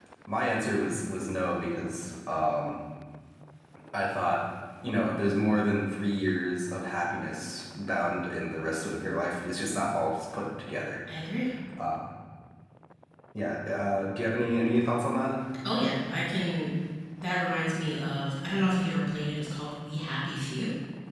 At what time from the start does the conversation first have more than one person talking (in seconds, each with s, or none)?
none